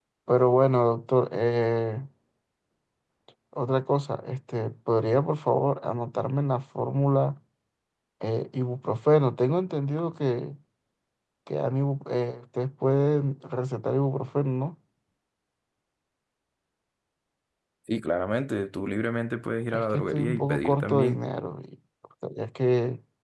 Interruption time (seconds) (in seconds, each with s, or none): 19.7 s